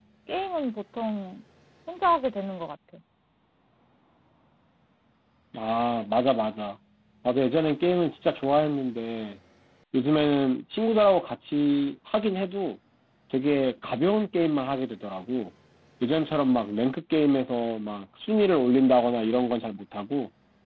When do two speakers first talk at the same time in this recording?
none

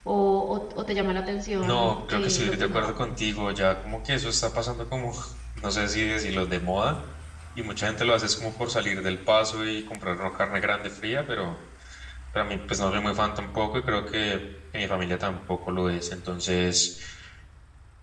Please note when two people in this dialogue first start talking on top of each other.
1.6 s

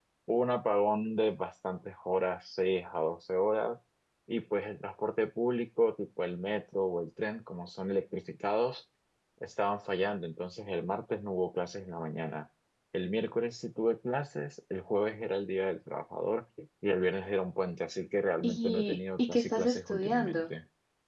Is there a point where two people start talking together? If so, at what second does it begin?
18.4 s

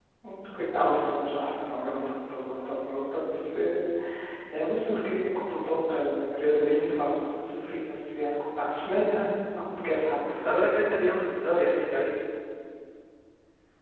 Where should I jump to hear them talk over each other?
none

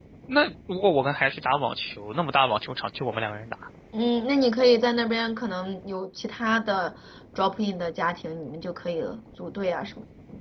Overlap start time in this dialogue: none

